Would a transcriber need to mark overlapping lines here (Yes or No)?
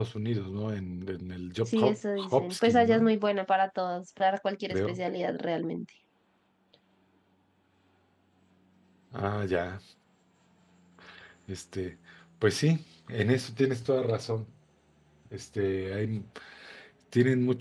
Yes